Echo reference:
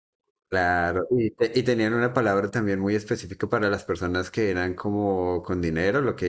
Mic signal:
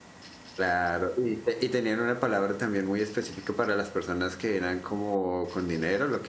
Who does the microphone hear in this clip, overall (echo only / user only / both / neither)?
echo only